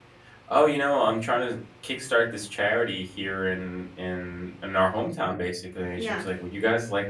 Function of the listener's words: listening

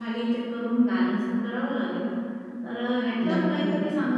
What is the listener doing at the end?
listening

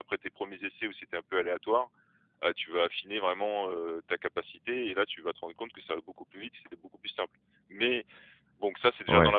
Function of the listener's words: taking over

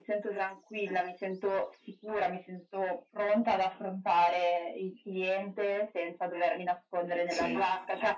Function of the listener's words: listening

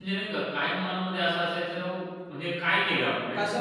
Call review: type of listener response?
taking over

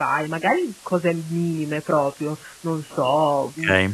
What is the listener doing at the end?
listening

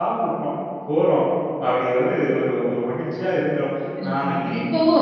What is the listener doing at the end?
taking over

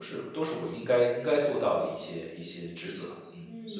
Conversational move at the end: taking over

